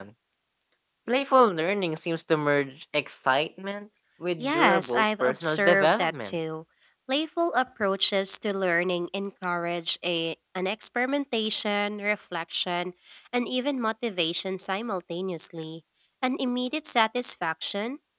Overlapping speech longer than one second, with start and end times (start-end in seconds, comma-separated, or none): 4.4-6.4